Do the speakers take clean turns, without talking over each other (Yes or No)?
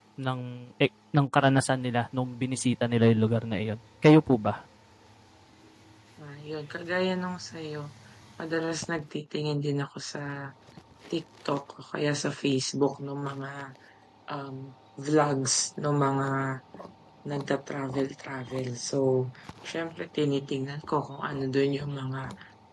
Yes